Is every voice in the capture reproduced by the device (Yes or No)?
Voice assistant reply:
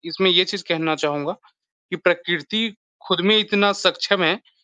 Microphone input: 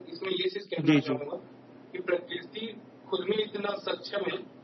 No